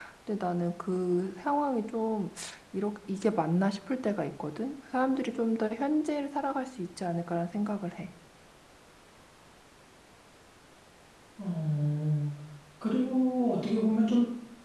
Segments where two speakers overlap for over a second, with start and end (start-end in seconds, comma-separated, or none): none